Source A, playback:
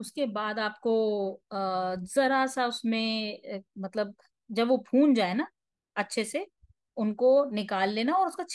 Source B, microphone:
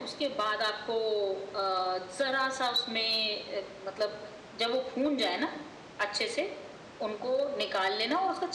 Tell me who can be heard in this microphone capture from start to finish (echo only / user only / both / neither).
echo only